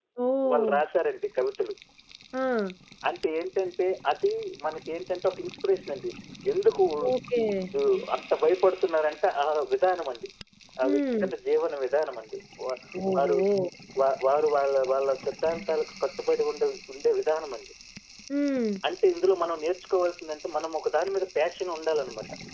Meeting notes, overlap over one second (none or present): none